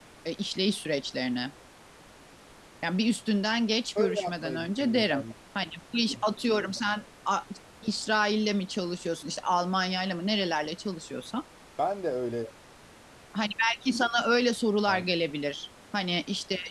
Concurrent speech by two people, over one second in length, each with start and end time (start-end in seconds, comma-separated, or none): 4.0-5.2